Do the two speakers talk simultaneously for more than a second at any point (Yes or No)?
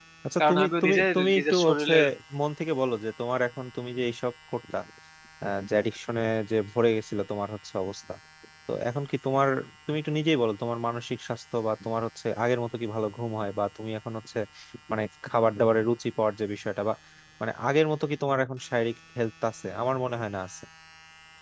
Yes